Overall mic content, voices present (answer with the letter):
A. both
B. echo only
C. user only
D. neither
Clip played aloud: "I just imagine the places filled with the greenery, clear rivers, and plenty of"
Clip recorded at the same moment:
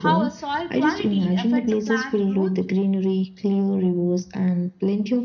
A